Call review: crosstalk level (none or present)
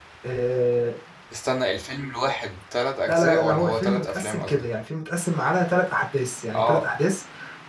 present